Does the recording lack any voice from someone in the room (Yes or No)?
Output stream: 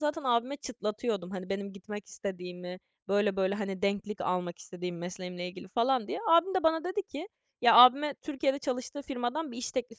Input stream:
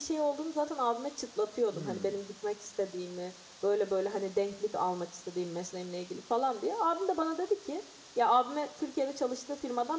No